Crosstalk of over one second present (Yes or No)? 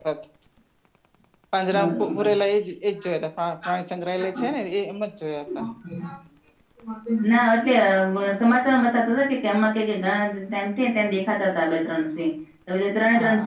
No